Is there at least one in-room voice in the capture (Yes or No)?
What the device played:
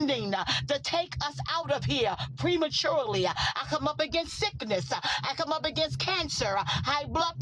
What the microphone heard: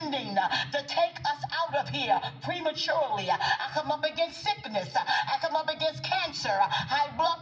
No